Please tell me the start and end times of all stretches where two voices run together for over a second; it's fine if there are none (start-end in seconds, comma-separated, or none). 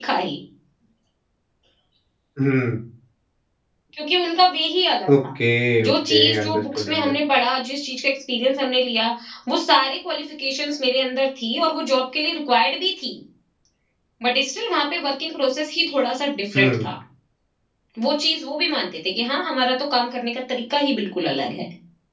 5.9-7.1